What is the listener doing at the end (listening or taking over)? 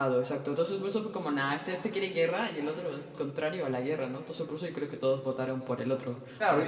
taking over